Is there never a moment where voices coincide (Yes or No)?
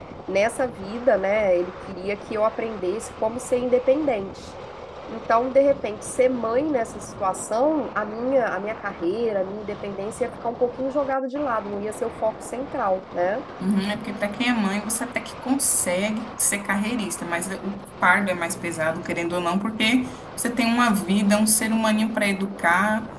Yes